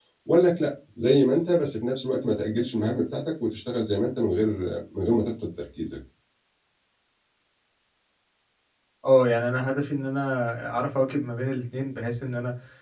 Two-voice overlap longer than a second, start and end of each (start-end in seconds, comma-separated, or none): none